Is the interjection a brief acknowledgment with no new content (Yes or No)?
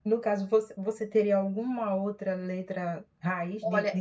No